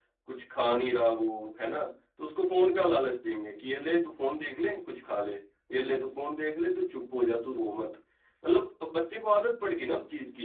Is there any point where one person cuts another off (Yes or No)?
No